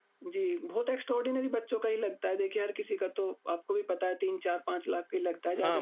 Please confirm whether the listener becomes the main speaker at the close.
Yes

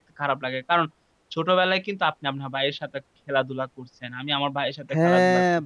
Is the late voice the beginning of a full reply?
Yes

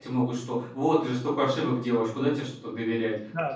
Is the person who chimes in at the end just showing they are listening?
No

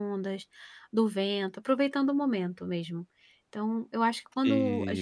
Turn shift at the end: No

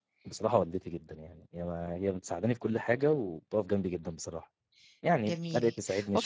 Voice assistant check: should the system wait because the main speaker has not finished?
No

